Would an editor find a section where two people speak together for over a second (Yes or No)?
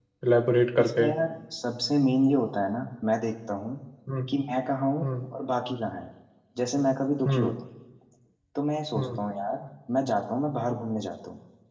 No